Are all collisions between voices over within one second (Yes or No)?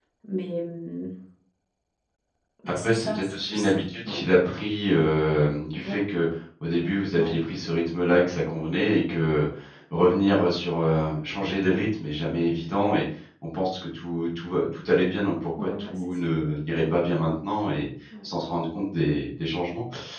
No